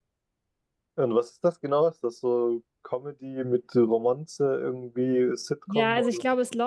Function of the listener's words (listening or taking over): taking over